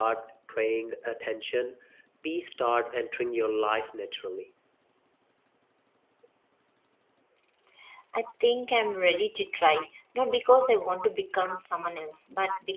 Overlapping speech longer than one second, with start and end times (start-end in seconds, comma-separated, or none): none